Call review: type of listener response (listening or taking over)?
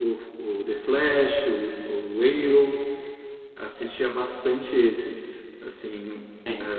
listening